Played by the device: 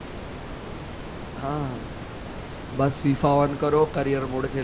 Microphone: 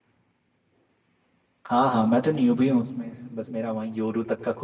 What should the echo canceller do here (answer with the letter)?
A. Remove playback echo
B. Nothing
B